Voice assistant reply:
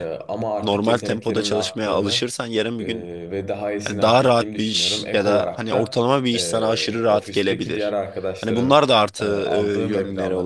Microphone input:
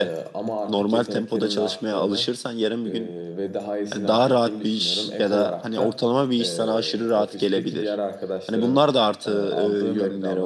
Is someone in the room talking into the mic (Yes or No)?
No